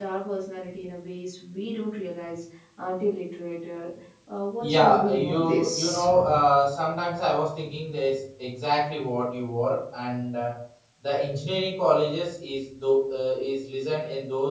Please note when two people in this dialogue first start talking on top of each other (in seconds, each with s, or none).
4.6 s